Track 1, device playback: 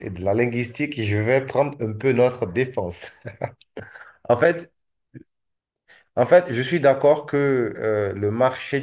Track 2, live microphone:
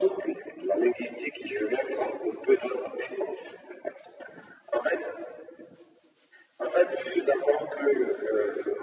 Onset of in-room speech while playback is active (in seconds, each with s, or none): none